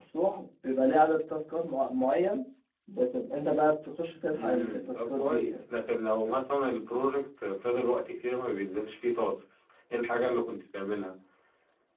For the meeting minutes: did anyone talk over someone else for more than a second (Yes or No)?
Yes